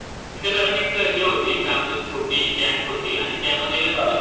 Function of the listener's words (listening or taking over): listening